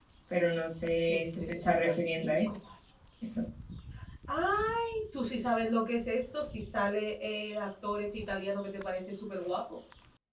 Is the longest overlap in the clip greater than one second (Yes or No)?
Yes